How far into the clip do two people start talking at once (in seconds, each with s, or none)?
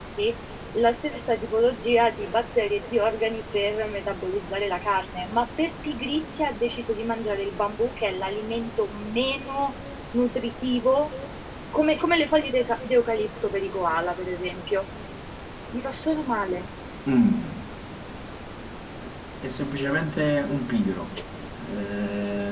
none